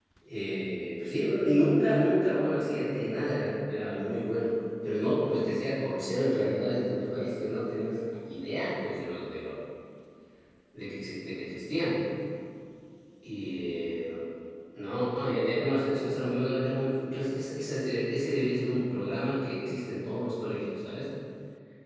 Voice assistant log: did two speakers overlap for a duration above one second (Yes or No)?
No